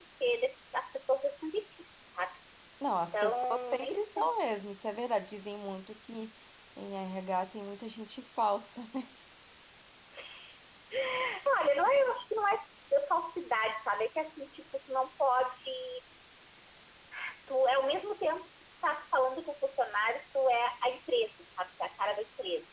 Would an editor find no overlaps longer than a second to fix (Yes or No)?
No